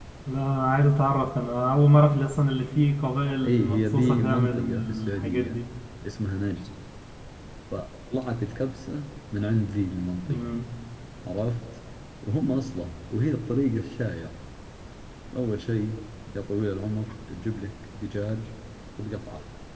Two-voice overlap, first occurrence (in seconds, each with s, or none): 3.4 s